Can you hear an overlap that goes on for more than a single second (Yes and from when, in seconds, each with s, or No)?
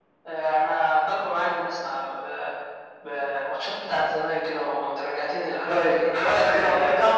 Yes, from 5.7 s